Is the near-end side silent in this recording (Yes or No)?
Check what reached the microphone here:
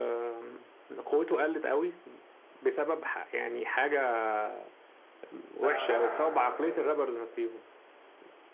No